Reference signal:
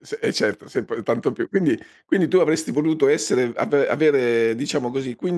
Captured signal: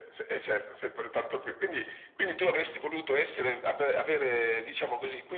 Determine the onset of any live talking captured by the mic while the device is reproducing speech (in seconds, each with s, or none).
none